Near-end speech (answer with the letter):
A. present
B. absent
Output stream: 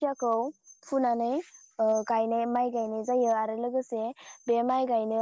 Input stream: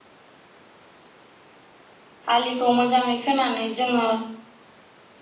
A